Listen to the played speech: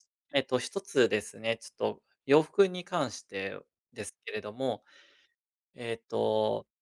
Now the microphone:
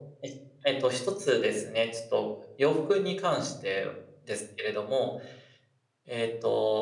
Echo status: present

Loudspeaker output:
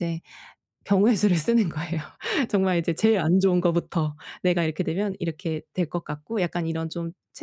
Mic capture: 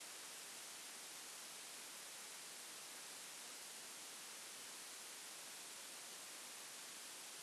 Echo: none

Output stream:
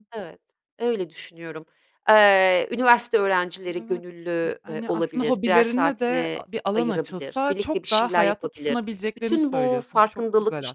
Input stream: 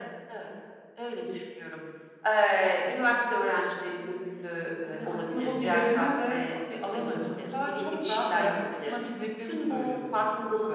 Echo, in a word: present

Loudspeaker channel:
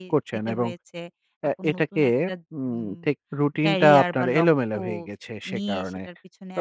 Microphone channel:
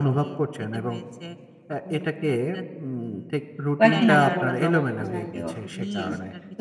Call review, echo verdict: present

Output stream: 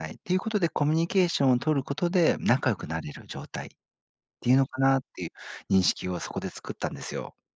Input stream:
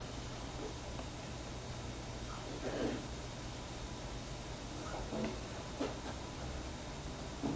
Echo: none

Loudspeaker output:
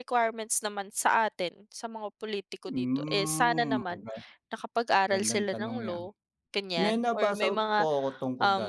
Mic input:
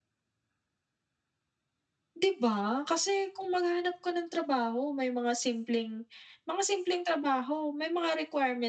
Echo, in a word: none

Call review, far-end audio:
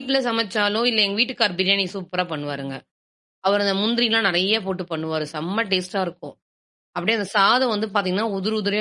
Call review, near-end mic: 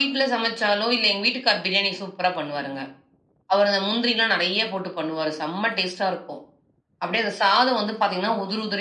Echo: present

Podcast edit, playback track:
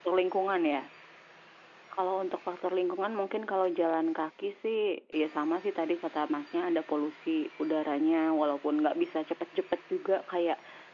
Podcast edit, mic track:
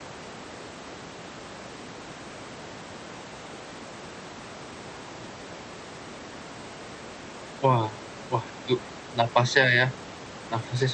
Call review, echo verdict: none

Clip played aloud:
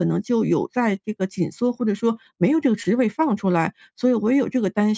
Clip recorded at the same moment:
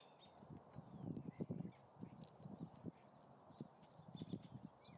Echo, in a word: none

